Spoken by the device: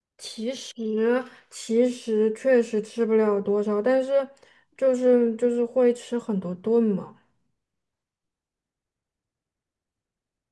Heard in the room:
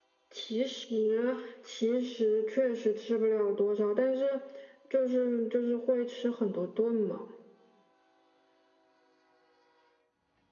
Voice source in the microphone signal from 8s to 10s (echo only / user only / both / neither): neither